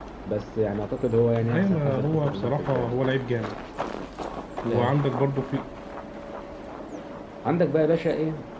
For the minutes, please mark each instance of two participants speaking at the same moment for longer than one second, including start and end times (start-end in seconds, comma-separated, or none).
1.4-3.0